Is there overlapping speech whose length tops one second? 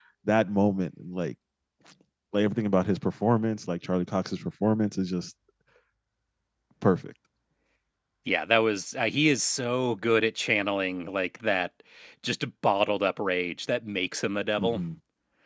No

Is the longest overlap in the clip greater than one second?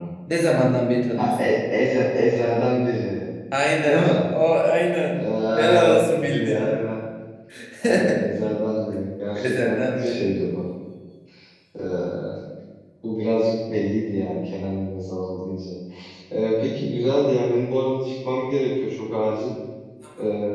Yes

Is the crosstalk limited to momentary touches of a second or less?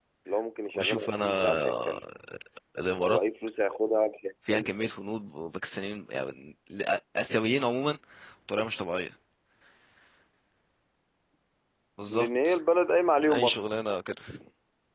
No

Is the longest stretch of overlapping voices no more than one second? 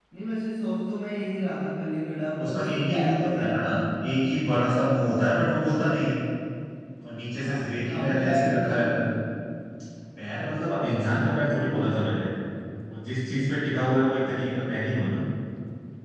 No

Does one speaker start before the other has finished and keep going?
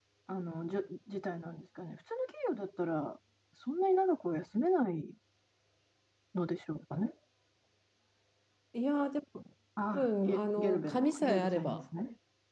Yes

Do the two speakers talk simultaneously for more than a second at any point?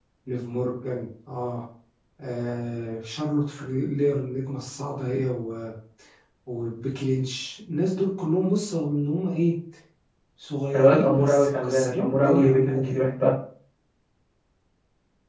Yes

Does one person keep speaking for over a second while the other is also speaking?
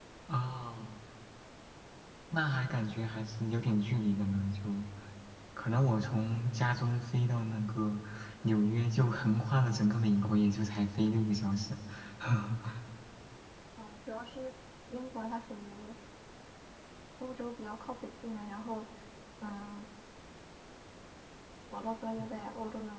No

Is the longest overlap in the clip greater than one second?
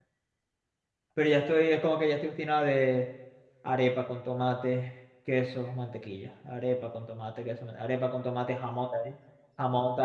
No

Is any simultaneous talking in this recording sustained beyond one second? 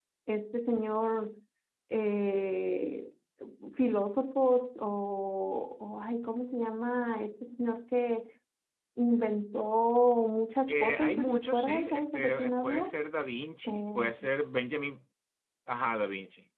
Yes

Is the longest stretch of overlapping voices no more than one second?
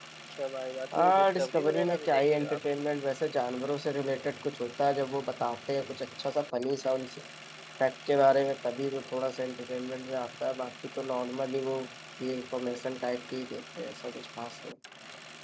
No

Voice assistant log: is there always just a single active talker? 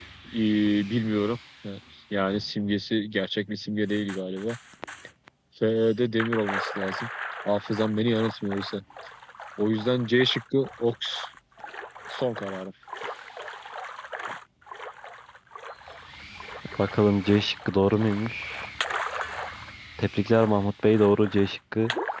Yes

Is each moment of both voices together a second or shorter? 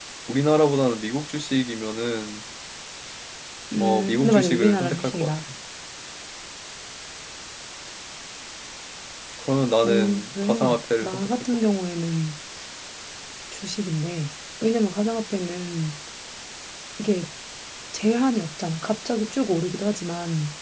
No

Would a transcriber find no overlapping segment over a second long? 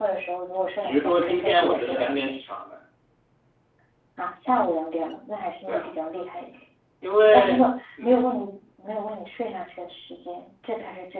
No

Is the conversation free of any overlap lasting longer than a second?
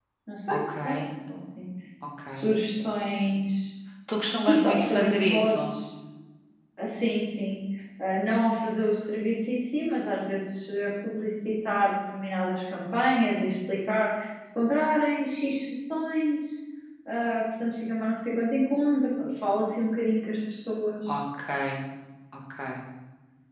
No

